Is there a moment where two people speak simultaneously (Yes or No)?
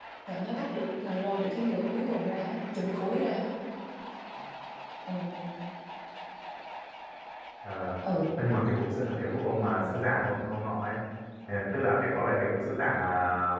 No